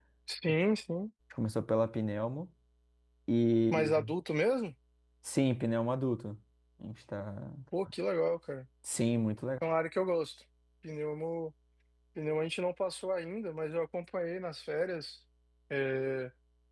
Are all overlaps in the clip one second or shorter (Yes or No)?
Yes